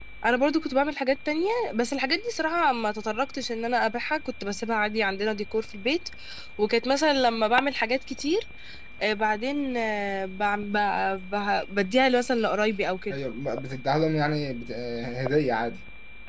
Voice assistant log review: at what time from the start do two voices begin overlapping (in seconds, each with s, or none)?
none